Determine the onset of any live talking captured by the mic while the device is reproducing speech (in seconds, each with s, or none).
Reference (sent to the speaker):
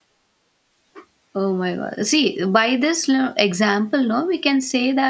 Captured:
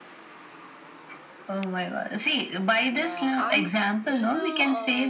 2.9 s